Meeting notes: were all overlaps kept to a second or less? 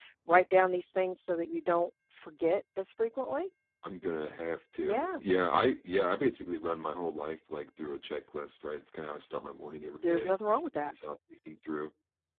Yes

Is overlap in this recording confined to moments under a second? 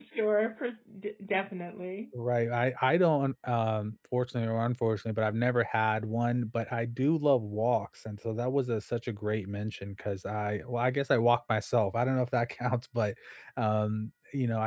Yes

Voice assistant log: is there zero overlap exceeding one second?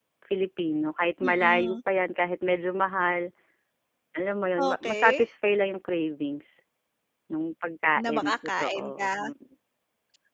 No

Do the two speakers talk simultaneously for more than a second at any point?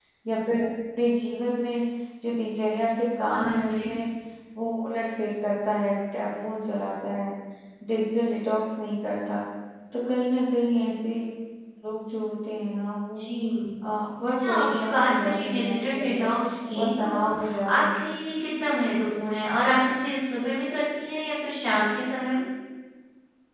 Yes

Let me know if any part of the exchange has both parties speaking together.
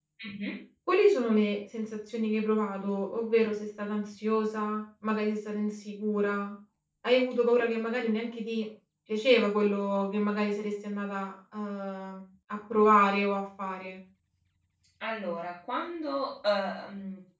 No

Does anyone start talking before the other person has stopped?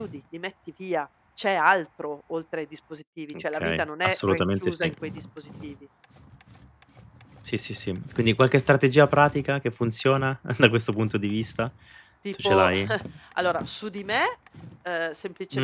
Yes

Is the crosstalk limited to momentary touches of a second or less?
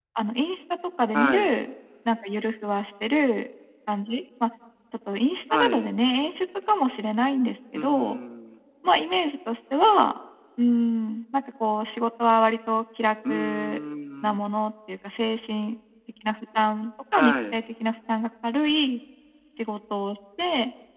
Yes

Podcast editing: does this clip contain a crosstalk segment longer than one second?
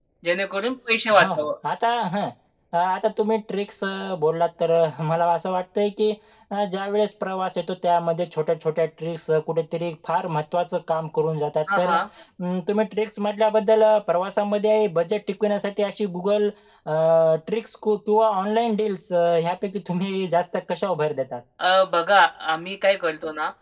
No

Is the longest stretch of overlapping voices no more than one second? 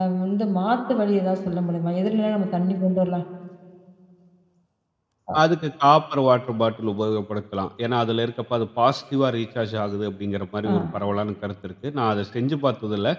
Yes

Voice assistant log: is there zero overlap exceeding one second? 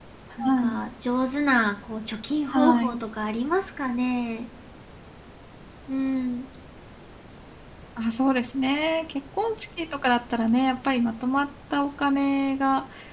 Yes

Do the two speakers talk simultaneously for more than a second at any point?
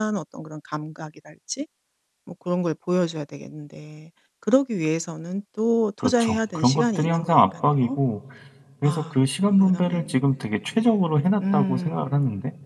Yes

